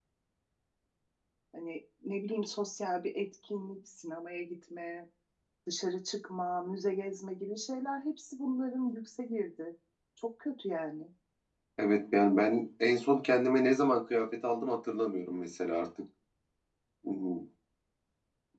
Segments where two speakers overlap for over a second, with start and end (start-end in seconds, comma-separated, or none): none